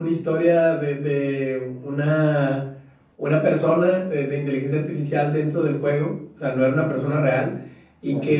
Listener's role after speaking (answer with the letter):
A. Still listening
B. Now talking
A